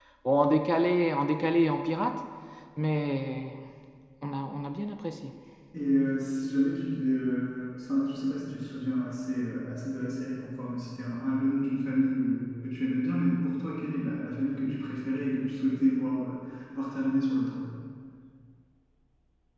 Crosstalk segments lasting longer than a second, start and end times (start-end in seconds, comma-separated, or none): none